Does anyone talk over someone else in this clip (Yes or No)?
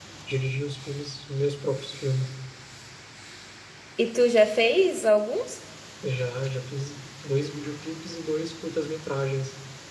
No